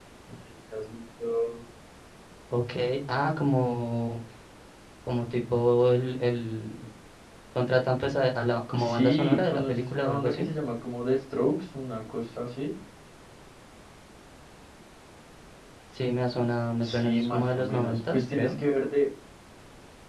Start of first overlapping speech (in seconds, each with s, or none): 8.7 s